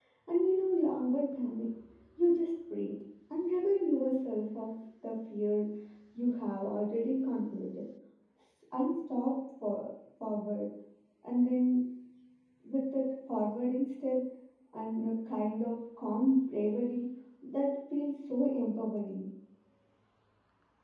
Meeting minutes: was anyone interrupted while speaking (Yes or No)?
No